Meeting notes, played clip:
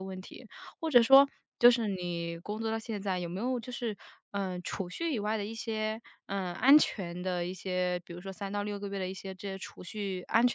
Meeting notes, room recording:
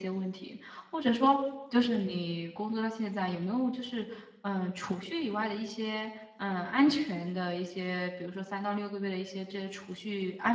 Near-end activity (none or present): none